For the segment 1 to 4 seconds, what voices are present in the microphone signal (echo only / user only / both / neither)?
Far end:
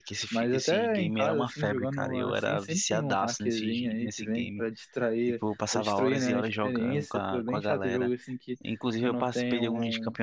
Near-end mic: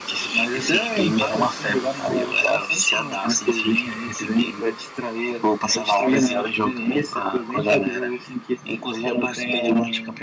echo only